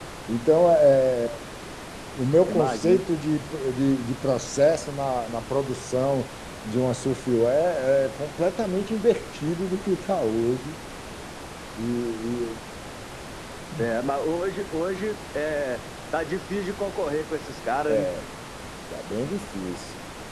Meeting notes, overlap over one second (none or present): none